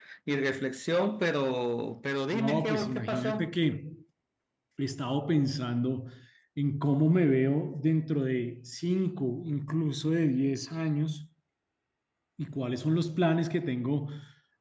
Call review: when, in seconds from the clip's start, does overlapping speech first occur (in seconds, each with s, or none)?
2.3 s